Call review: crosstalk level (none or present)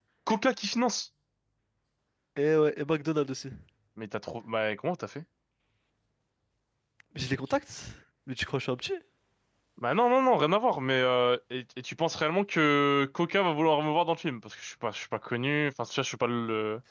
none